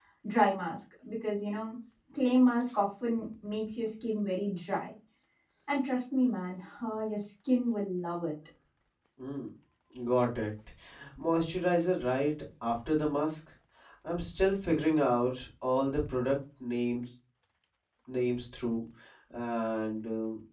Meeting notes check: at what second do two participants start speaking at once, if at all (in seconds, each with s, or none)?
none